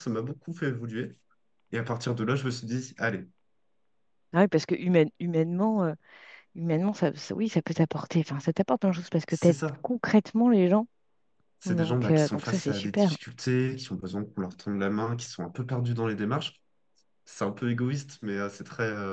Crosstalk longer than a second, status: present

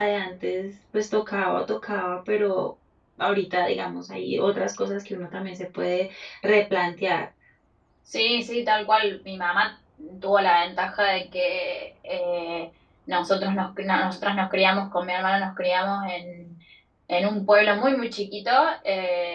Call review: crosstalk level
none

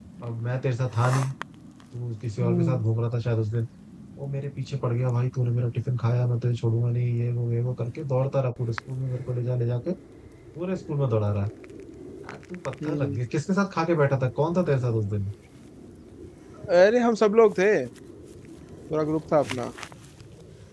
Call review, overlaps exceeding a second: none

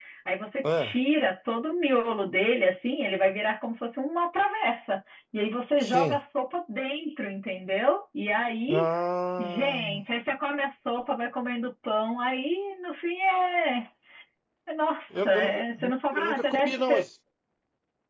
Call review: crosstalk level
present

